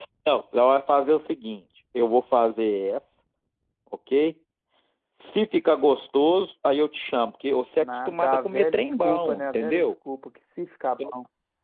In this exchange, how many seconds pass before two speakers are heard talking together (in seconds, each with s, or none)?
7.8 s